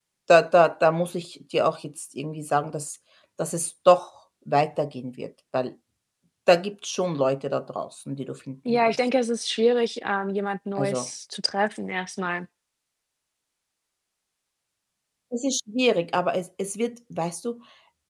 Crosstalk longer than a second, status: none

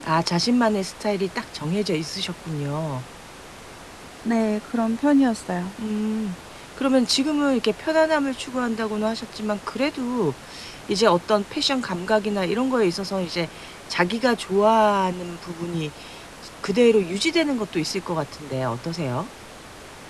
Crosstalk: none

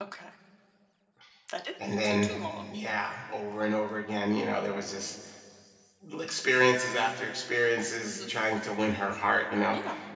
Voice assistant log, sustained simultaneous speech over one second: none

